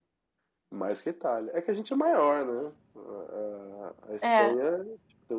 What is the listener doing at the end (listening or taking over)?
listening